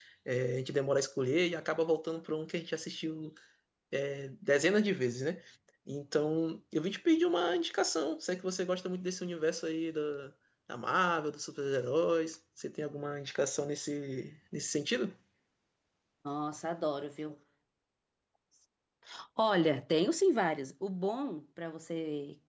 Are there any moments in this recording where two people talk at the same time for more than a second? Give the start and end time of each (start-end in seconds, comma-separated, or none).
none